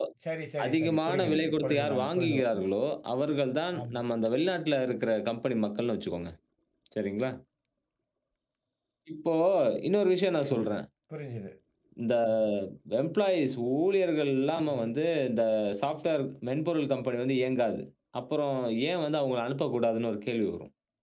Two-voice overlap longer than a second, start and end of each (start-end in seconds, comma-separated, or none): 0.6-2.6